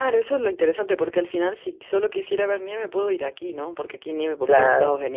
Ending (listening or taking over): listening